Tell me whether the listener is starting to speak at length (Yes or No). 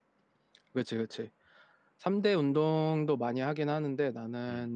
No